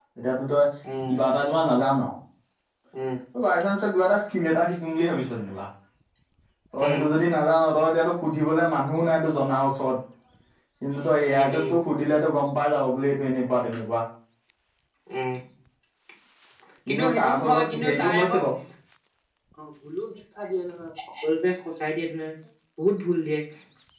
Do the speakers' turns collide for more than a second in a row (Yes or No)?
Yes